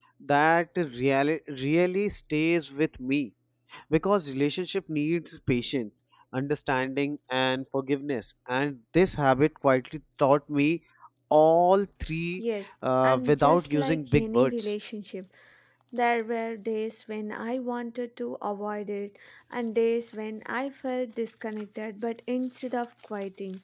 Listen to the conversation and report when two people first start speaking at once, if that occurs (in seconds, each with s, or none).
13.0 s